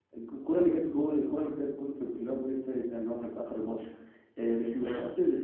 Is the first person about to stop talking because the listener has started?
No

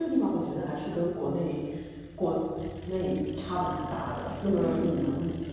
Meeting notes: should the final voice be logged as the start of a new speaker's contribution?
No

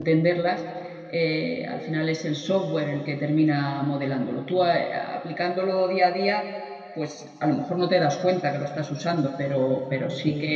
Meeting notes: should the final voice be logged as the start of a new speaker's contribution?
No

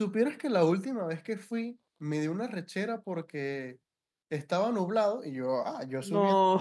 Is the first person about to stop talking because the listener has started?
No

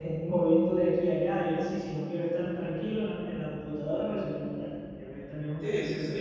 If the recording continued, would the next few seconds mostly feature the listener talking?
Yes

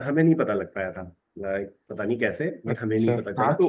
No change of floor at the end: No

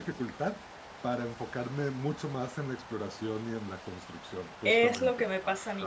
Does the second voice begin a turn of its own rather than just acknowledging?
Yes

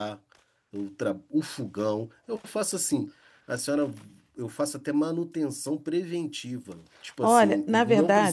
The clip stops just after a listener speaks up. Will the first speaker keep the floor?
No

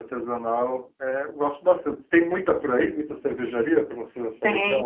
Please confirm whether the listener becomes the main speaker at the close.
Yes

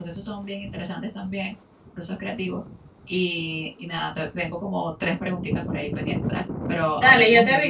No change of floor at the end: No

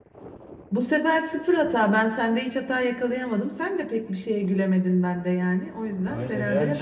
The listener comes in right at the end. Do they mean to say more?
Yes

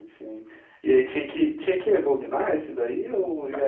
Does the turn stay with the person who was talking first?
No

